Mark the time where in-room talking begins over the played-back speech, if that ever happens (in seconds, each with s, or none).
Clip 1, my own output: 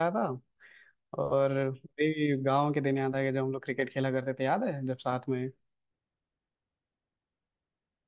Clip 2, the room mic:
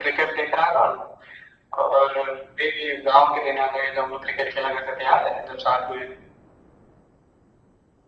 none